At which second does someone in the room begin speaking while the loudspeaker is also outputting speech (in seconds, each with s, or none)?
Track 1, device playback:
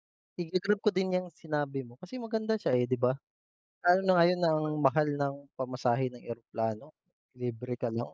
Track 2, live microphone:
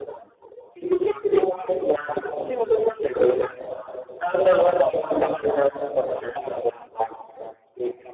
none